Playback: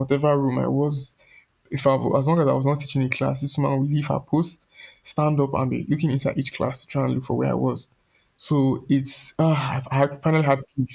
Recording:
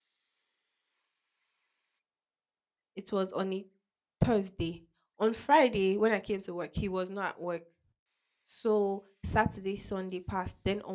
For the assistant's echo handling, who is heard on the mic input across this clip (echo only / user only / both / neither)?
user only